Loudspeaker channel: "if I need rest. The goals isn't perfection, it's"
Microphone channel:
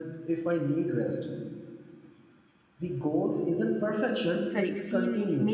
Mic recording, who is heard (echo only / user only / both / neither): both